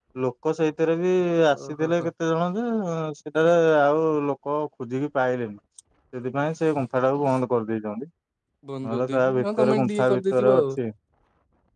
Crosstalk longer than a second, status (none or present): present